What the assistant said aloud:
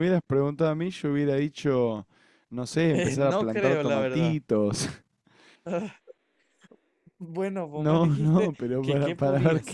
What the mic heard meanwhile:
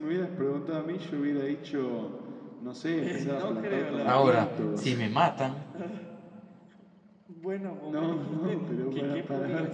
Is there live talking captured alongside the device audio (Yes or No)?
Yes